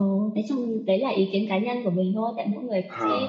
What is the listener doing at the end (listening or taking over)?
listening